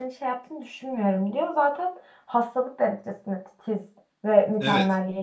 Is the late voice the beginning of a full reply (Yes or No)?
Yes